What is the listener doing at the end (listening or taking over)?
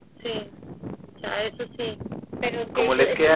taking over